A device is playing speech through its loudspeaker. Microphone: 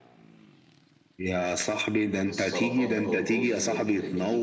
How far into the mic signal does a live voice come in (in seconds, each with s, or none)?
2.1 s